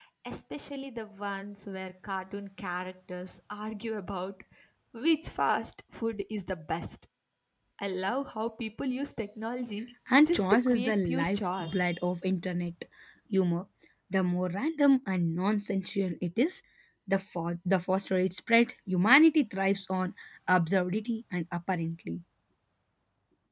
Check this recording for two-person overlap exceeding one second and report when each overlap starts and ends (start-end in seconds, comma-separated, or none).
10.2-11.8